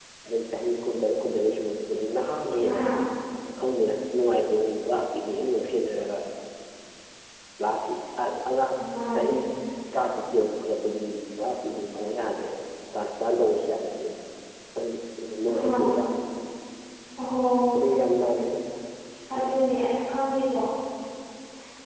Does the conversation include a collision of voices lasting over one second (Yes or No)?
No